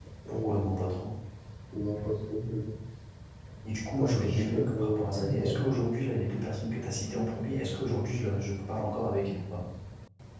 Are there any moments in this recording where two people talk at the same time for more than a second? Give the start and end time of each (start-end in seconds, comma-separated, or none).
4.0-5.5